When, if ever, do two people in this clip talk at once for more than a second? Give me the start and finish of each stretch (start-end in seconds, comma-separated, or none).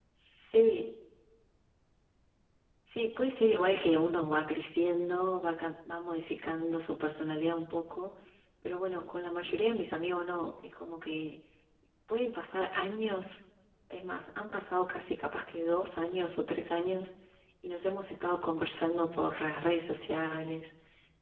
none